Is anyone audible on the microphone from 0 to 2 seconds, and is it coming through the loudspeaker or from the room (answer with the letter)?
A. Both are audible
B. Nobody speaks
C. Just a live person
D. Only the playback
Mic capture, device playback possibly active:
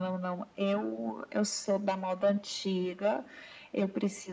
D